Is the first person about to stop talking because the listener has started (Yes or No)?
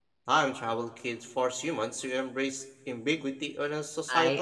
Yes